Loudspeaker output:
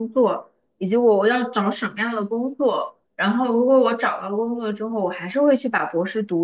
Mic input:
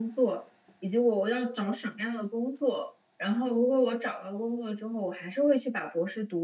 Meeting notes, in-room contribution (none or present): none